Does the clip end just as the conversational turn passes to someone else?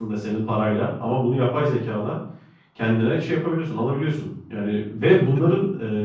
No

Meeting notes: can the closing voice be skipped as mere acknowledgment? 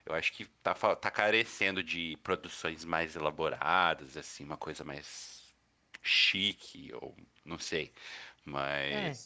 No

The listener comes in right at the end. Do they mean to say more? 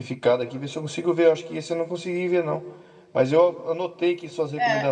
No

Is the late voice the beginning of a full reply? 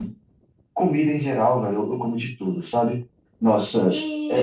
No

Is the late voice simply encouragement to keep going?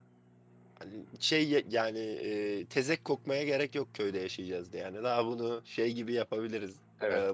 No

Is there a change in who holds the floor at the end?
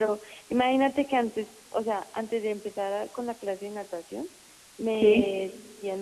No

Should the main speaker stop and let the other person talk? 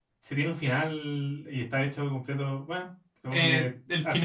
Yes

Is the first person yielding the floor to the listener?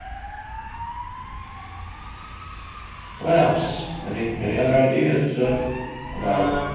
No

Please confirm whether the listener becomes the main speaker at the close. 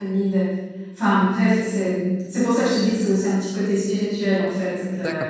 Yes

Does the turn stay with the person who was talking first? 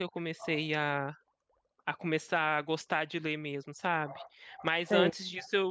Yes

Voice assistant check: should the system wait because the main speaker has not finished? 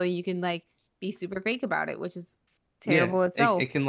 No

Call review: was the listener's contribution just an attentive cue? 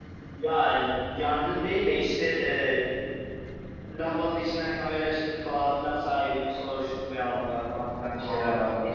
No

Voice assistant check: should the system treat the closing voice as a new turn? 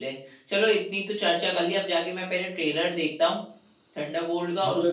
Yes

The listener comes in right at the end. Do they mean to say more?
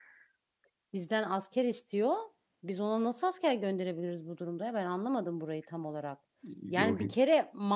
No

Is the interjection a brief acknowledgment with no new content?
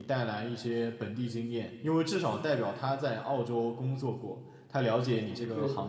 Yes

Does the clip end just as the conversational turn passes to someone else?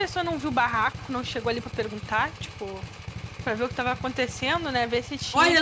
Yes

